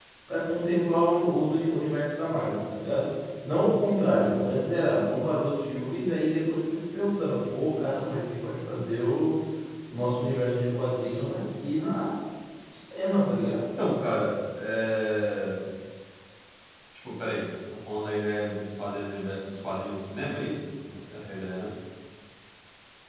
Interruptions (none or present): none